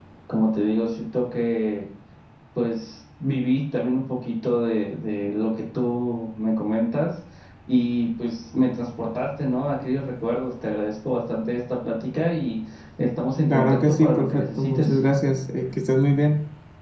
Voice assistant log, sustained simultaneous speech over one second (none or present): present